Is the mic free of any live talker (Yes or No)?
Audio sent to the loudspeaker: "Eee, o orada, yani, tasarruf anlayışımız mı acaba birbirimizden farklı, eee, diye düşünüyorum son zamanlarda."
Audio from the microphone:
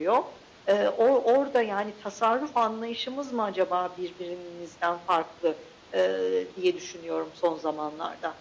Yes